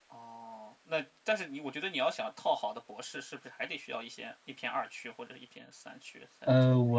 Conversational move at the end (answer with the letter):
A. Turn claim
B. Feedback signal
A